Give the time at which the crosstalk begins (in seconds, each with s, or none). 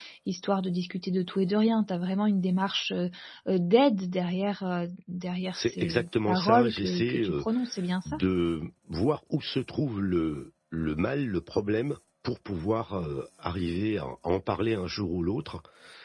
5.5 s